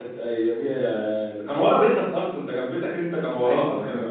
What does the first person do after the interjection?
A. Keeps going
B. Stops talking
B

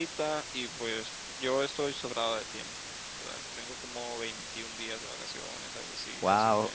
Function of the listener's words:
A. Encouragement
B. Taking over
A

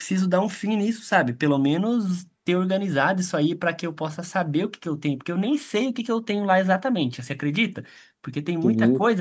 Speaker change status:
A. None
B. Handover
A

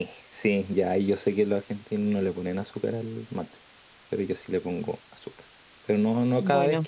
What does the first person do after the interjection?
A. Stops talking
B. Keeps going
B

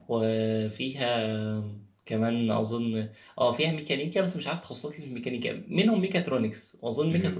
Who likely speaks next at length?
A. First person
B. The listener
A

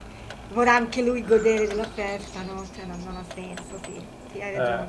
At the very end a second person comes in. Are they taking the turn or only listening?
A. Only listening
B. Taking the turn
B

